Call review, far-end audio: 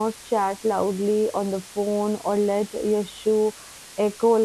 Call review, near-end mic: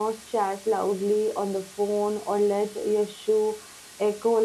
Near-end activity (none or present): none